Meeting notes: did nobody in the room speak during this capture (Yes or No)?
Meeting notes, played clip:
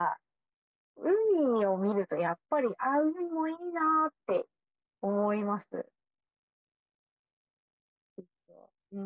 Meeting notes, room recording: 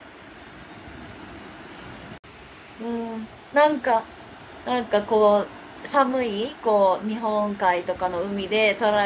No